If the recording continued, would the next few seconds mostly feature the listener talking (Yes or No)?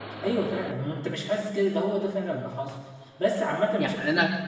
Yes